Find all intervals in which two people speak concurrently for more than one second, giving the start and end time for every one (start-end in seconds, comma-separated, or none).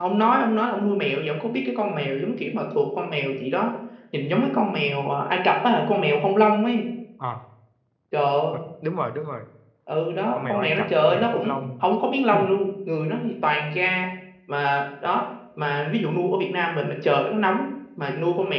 10.3-11.8